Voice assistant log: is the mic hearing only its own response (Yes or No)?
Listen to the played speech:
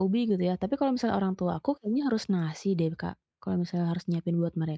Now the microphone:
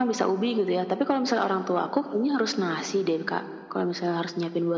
Yes